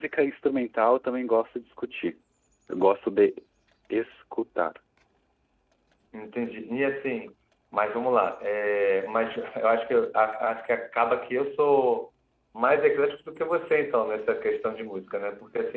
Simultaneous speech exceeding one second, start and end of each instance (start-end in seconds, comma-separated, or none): none